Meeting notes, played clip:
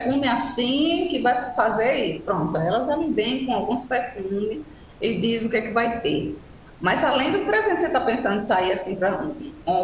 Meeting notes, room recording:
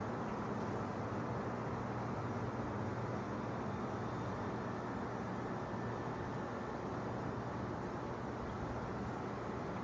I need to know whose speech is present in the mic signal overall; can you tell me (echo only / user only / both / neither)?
neither